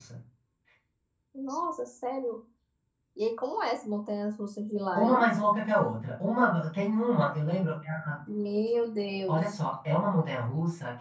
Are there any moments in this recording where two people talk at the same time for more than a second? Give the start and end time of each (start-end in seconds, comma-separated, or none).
none